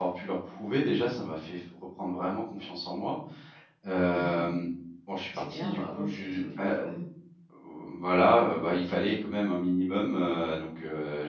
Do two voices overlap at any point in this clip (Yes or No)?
Yes